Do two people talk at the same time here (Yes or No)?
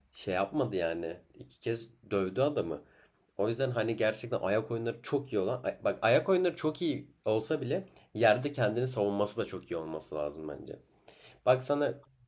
No